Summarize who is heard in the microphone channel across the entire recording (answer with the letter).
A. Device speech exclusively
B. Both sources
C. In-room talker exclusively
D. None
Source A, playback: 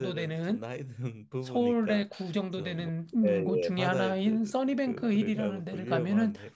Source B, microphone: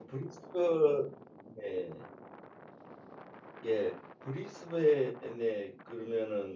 C